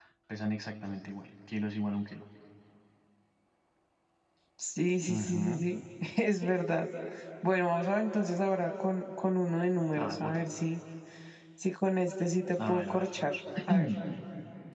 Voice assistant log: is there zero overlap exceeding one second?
Yes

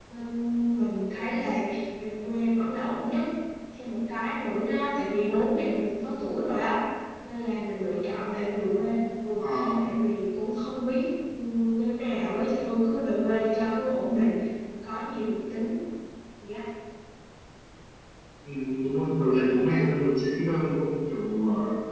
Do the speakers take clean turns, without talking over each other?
Yes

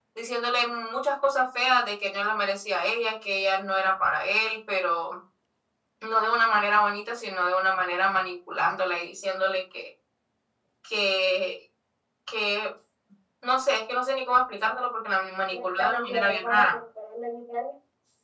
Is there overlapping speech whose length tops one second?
Yes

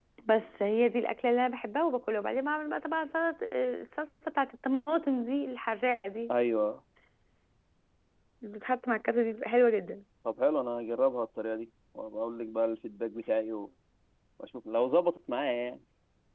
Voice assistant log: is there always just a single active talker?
Yes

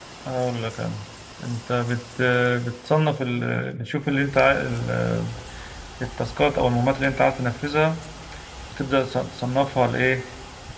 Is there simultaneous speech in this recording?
No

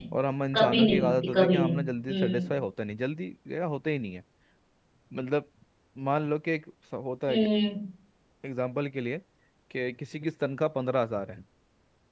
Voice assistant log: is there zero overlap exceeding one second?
No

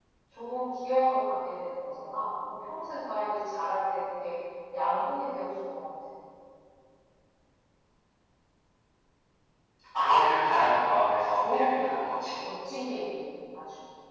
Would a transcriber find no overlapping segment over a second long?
No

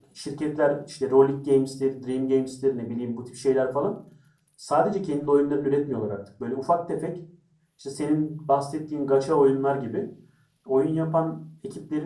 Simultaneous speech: No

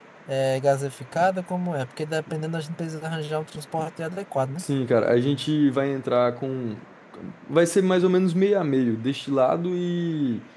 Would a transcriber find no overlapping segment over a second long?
Yes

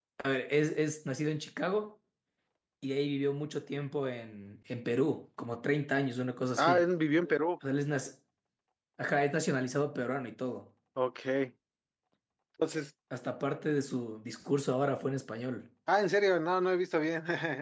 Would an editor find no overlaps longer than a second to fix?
Yes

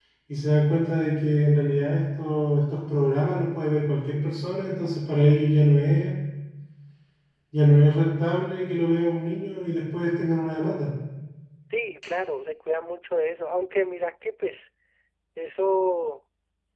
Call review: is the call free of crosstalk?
Yes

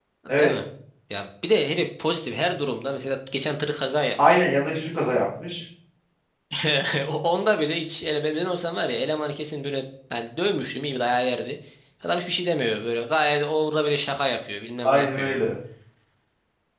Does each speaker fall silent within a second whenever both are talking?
Yes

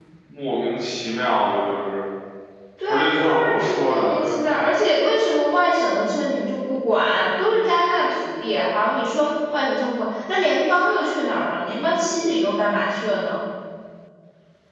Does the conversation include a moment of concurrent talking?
Yes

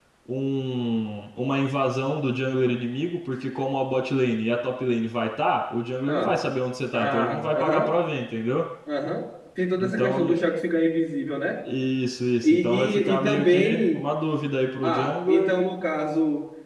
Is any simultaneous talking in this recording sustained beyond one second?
Yes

